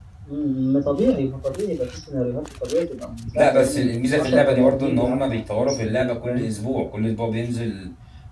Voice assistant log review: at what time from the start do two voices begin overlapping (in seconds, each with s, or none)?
3.3 s